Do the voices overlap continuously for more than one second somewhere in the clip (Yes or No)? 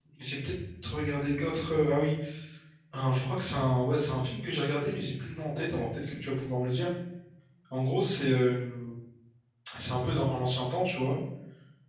No